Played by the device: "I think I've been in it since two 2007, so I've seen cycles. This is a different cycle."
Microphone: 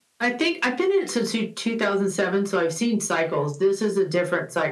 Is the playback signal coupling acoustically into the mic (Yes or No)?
Yes